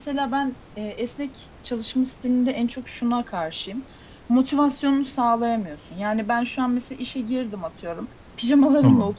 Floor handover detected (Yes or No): No